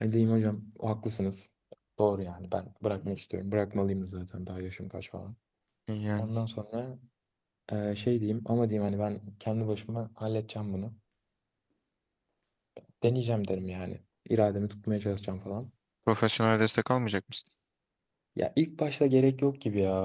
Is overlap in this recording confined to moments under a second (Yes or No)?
Yes